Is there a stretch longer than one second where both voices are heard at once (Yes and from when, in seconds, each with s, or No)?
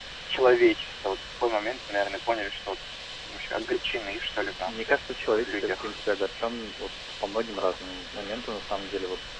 No